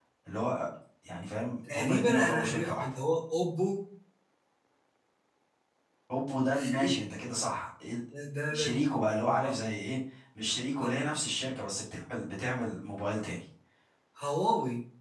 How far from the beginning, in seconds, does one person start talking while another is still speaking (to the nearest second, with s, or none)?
2 s